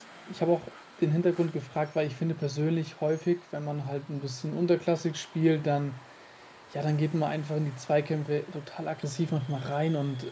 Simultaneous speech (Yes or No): No